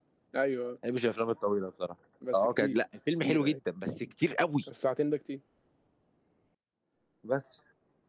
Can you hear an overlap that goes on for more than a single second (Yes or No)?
No